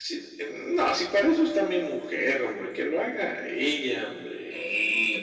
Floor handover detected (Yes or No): Yes